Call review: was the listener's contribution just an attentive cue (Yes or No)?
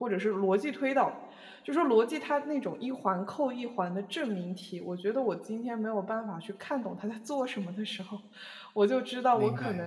Yes